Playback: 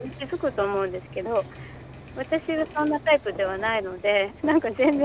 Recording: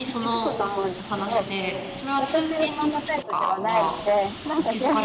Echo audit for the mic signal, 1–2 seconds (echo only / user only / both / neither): both